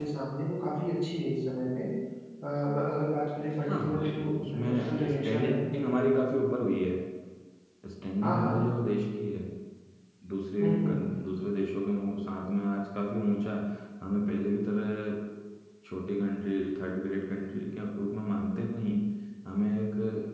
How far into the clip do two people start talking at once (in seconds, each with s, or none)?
3.7 s